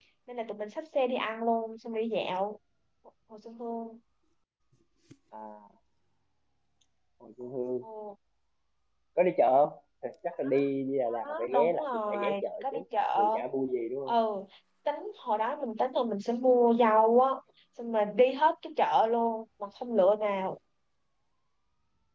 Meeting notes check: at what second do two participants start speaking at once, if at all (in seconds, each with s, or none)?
11.1 s